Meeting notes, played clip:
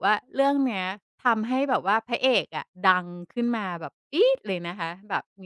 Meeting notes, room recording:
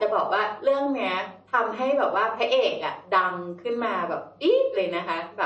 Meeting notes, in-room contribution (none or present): none